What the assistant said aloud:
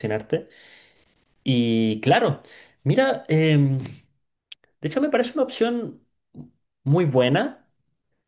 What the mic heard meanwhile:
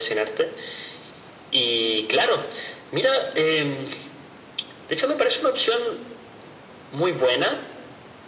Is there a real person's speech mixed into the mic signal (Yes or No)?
No